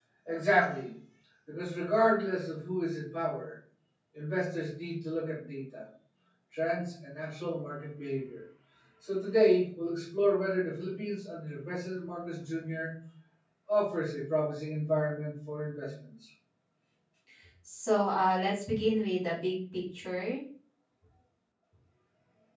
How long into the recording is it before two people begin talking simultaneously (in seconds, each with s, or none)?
none